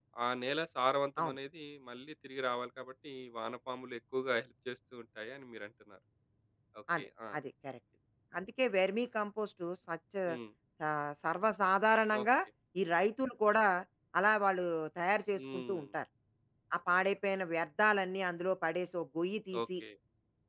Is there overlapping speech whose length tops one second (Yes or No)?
No